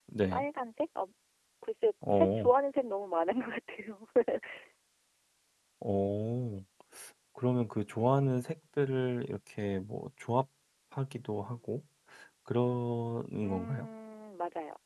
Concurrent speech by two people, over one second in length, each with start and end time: none

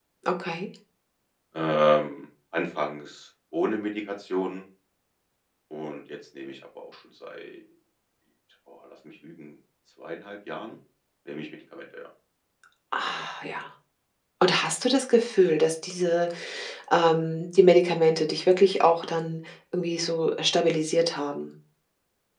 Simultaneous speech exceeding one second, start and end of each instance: none

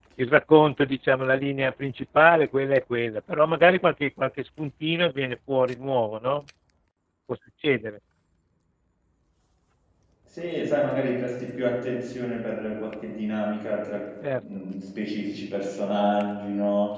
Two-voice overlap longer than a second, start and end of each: none

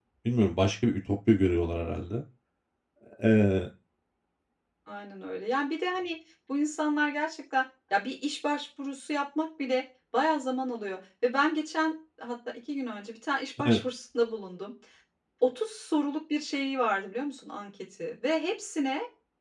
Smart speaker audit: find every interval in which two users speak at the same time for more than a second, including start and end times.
none

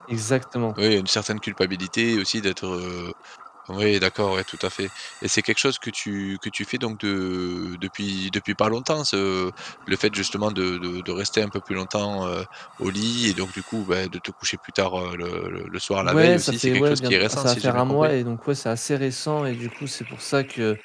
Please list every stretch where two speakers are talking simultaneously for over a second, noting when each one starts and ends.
16.0-18.1

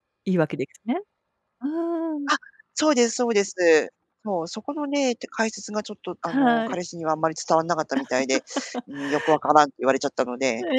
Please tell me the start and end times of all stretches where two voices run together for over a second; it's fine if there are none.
none

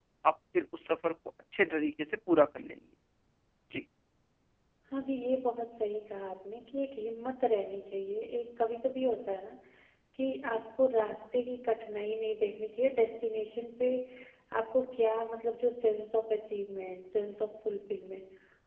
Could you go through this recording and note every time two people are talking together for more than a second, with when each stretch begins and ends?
none

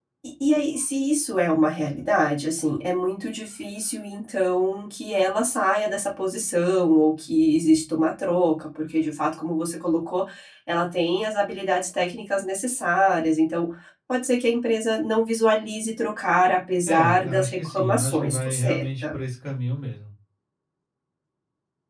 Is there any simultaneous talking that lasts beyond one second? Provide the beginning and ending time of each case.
16.9-19.2

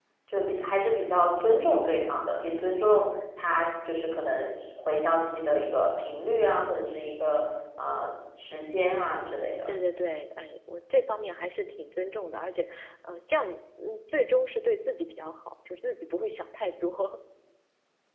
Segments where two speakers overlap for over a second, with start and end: none

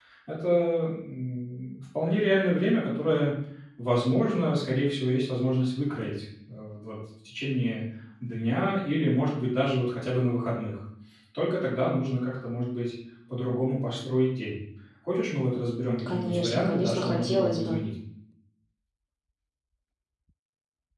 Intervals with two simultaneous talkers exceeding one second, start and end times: 16.1-17.8

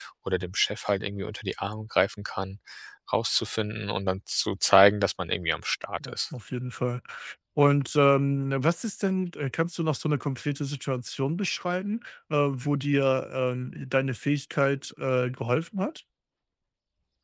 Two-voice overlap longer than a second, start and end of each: none

